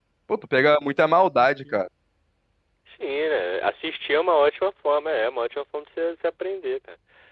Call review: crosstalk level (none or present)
none